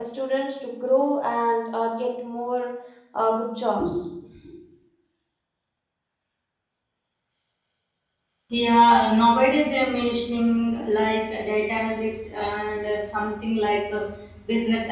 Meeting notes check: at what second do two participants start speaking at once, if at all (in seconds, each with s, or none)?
none